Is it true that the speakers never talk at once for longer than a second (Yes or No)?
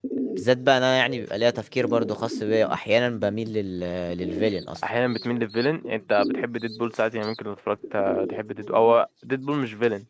Yes